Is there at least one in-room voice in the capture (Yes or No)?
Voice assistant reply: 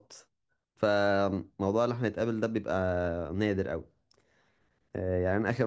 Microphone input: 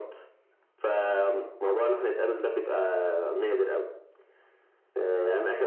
No